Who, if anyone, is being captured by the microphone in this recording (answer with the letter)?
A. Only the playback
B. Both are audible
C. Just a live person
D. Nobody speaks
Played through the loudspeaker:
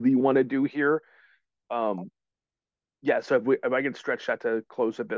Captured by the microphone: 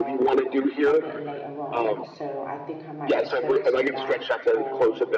B